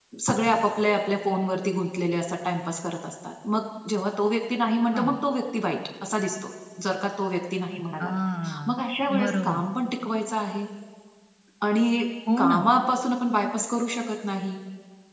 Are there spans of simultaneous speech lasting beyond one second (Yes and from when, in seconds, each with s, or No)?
No